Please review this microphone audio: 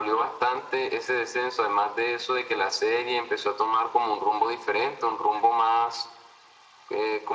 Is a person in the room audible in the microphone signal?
No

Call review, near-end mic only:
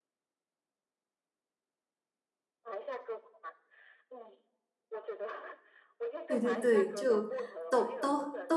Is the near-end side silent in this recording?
No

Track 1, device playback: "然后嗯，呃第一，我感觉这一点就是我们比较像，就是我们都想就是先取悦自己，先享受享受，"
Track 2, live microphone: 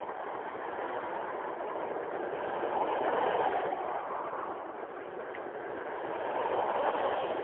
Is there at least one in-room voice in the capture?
No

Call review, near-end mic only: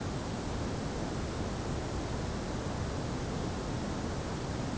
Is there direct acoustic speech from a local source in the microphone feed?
No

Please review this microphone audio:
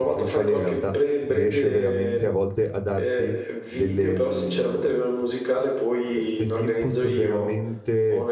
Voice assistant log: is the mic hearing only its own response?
No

